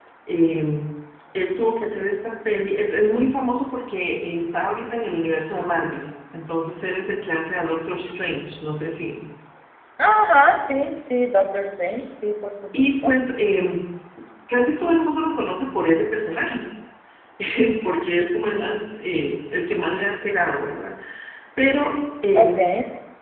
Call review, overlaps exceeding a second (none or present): none